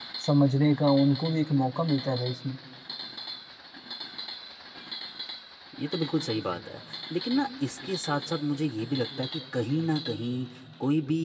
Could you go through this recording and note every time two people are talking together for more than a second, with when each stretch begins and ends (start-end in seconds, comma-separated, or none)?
none